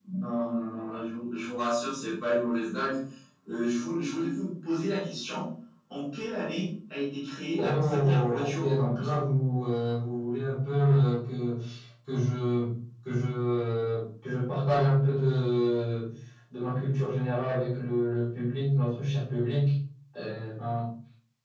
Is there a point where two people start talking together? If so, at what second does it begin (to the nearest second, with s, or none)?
8 s